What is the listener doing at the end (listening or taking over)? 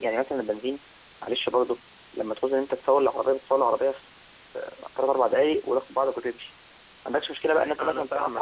listening